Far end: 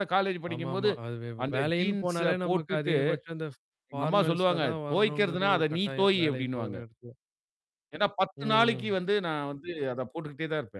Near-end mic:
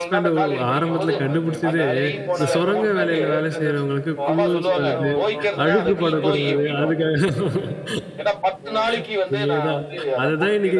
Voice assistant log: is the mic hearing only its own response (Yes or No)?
No